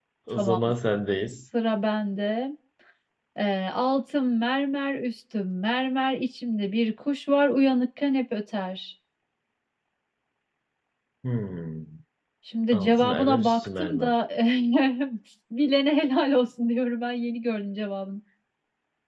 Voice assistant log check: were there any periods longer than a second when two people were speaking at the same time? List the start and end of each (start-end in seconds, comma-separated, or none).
12.7-14.2